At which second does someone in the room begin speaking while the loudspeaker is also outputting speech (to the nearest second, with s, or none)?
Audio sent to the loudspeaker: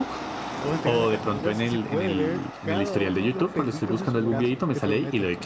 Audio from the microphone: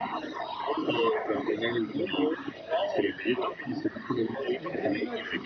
5 s